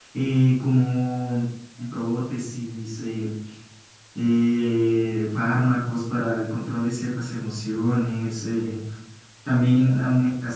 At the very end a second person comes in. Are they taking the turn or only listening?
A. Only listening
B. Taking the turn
A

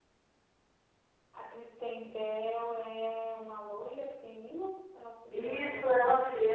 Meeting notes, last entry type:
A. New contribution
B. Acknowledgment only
A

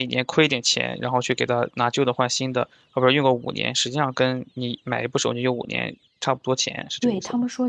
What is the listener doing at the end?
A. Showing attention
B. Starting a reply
B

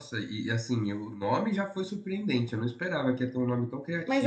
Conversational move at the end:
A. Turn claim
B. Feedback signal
A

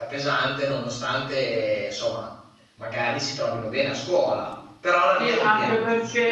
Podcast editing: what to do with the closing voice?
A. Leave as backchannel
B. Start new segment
B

